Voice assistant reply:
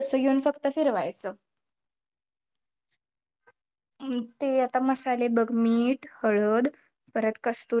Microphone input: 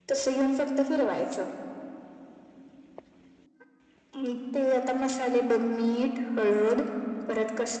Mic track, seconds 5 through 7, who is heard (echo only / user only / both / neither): echo only